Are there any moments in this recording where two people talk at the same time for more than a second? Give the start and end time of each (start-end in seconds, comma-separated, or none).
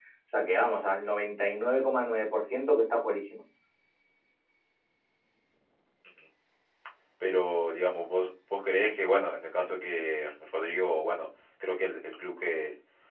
none